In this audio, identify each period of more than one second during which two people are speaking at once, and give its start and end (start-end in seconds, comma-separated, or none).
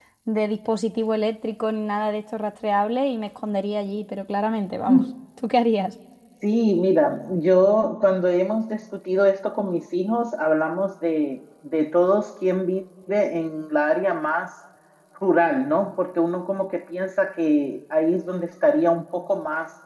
none